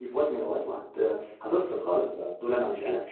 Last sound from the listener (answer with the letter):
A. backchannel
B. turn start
A